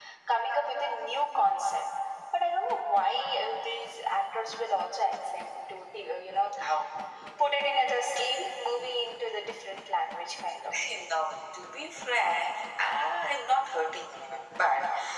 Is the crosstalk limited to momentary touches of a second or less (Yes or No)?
Yes